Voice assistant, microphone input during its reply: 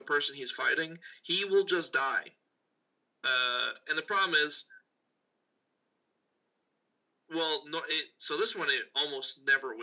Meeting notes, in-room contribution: none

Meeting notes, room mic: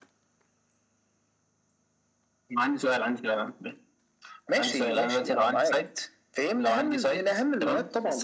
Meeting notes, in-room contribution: none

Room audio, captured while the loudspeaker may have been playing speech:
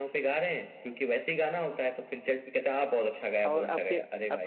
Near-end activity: present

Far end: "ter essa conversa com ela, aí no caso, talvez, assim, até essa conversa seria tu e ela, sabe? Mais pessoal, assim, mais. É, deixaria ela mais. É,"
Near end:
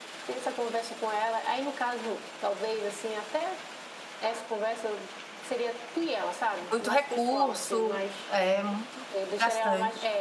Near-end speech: present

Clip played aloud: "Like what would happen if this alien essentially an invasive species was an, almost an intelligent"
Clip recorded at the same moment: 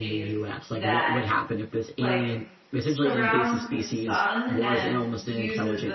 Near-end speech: present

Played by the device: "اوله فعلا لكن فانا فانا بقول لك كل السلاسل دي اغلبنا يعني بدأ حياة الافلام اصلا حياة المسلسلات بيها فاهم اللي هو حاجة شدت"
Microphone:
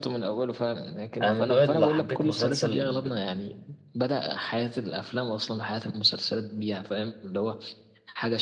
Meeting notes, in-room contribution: present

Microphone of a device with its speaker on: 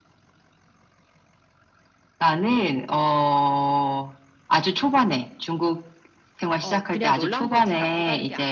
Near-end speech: present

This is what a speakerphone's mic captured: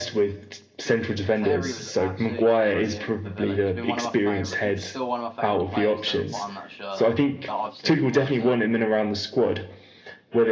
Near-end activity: present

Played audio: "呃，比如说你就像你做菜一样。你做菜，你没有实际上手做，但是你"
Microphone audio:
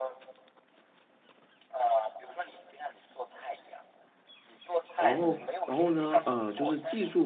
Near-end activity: present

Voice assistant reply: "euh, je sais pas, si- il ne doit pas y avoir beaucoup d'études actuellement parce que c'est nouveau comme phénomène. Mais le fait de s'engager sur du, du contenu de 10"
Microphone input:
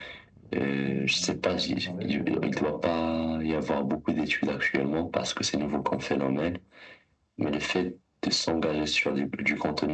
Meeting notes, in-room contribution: present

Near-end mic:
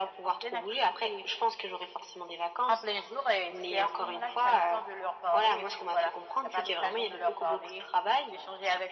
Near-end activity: none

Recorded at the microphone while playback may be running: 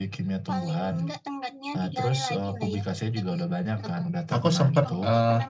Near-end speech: present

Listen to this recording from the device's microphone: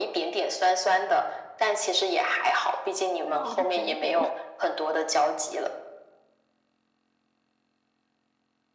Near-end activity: present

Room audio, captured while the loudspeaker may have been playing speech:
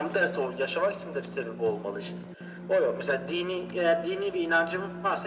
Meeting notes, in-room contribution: none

